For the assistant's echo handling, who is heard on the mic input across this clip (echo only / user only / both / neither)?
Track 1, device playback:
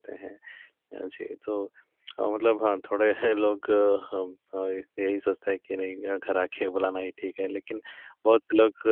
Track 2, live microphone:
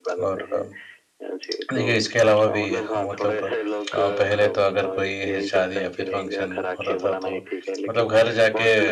both